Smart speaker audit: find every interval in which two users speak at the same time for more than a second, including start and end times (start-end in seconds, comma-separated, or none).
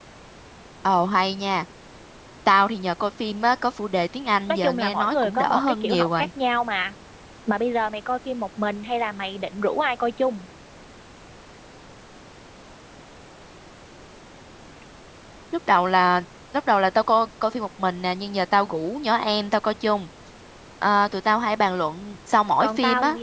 4.5-6.3